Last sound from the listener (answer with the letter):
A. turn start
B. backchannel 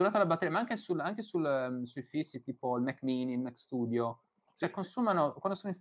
B